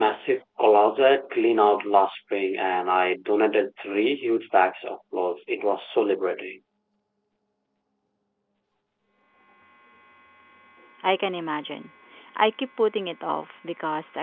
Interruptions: none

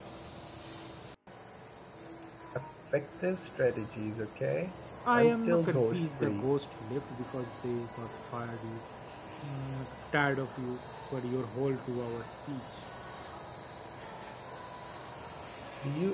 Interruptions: present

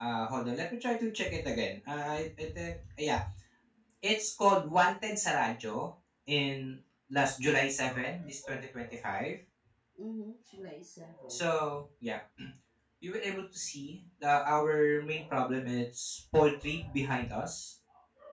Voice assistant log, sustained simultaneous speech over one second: none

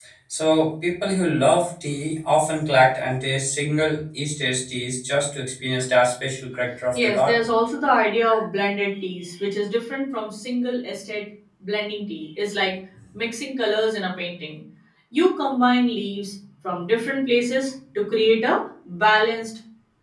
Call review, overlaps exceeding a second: none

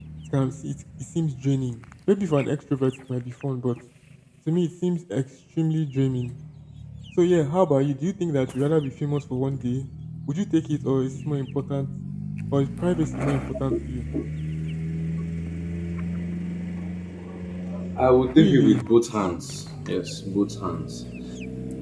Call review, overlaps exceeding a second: none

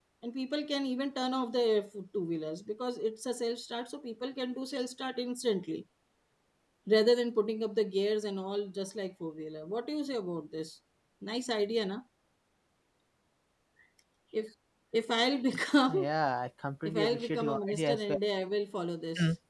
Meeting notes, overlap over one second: present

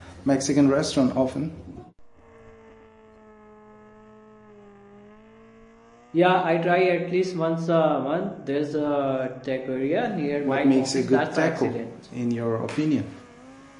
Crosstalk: present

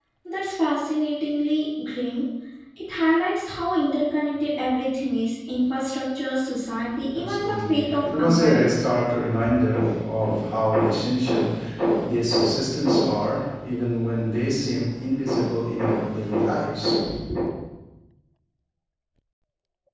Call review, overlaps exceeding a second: present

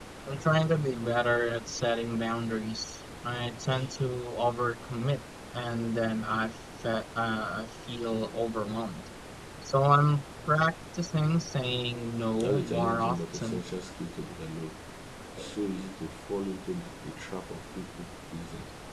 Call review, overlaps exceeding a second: present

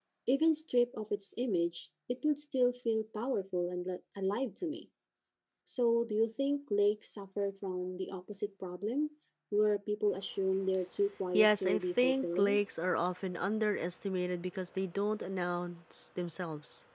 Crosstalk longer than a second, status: present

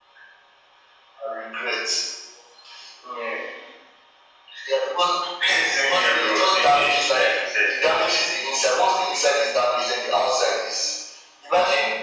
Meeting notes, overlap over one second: present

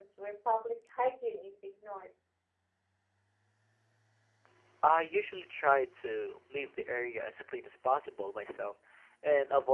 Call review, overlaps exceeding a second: none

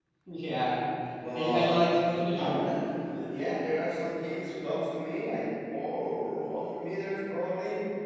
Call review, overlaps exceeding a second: none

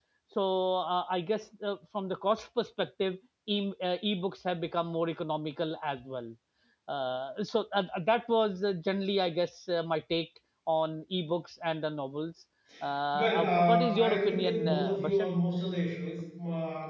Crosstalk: present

